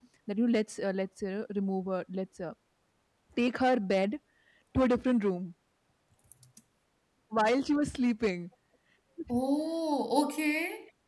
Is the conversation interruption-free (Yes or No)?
Yes